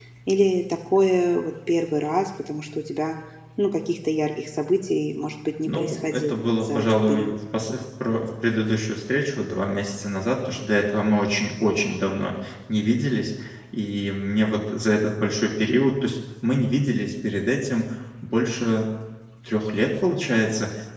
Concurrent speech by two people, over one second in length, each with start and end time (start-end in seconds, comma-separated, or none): 5.7-7.4